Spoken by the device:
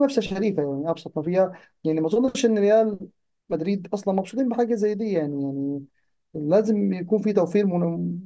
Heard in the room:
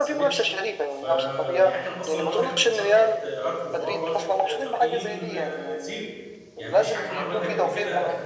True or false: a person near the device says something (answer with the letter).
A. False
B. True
B